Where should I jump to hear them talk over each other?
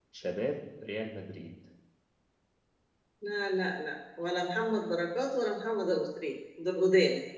none

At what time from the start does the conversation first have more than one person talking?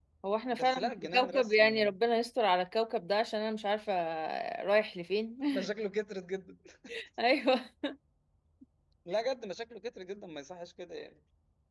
0.5 s

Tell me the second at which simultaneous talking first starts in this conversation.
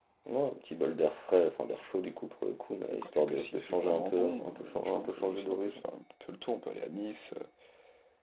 2.9 s

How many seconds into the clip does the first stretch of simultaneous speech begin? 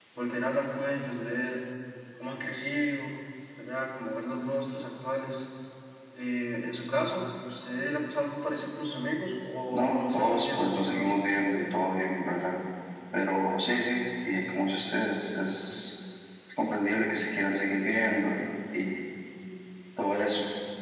9.7 s

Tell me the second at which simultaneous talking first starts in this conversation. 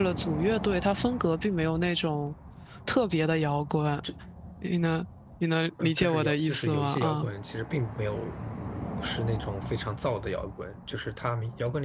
5.8 s

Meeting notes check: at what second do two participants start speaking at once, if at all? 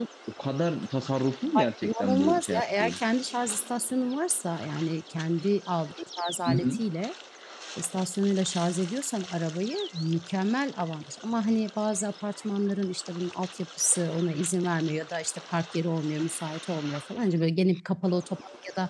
1.6 s

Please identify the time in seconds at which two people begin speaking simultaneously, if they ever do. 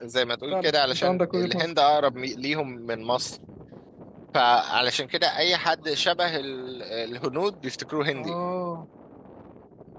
0.5 s

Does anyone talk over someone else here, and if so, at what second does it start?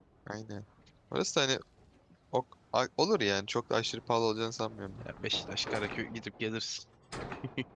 none

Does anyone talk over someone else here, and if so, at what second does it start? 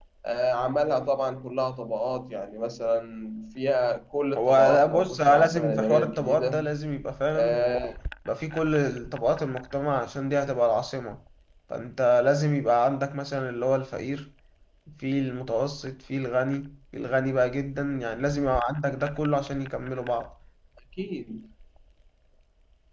4.4 s

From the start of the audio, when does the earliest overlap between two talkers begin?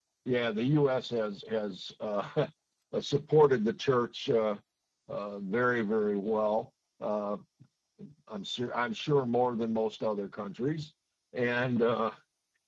none

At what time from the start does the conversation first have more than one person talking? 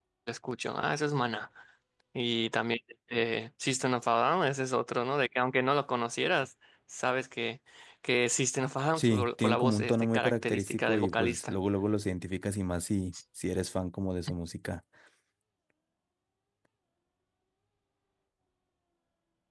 9.0 s

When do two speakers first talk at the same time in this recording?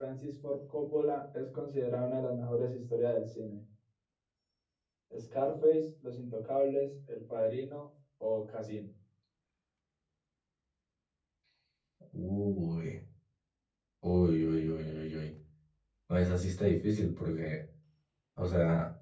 none

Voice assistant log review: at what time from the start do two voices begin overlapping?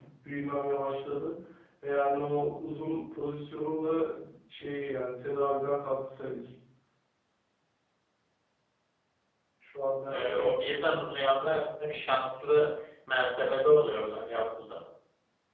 10.1 s

